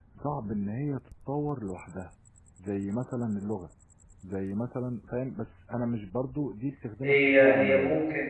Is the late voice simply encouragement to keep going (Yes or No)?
No